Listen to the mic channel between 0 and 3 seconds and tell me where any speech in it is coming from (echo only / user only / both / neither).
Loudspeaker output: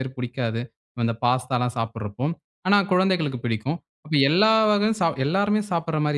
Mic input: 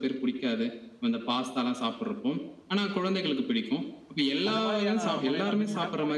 echo only